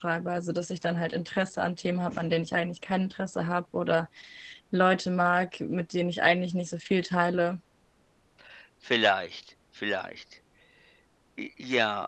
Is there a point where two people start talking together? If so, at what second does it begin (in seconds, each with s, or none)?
none